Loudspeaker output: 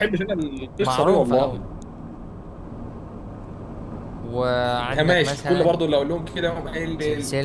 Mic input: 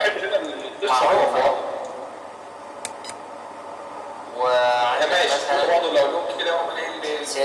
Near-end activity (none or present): none